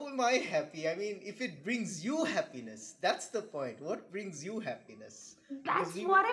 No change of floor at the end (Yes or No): No